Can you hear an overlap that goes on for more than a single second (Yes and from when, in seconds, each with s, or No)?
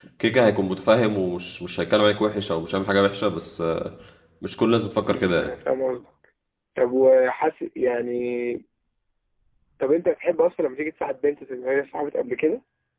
No